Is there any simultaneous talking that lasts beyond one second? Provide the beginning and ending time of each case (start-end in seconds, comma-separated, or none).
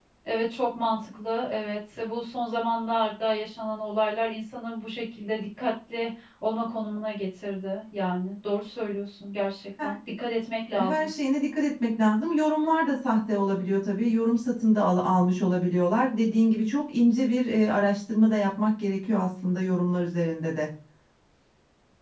none